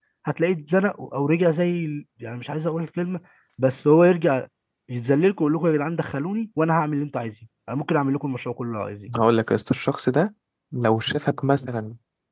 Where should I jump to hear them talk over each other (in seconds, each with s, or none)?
none